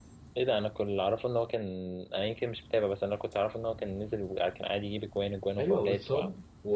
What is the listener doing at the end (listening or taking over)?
taking over